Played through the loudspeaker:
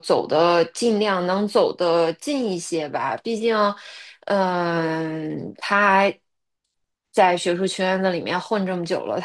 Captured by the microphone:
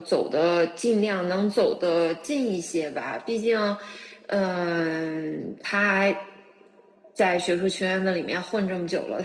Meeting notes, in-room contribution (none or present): none